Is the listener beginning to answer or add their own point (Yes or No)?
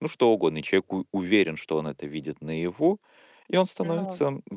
No